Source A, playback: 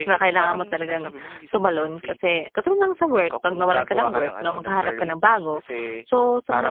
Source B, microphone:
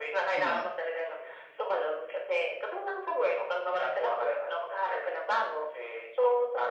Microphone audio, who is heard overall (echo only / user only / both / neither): both